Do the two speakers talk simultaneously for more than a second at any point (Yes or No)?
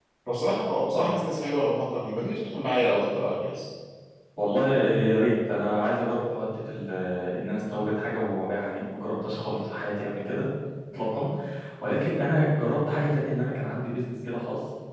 No